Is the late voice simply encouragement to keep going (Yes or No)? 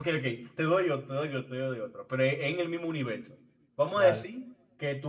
Yes